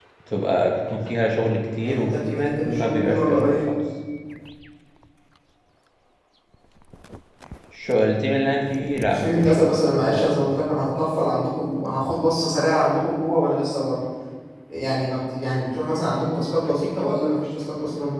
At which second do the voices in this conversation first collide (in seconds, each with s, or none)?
1.8 s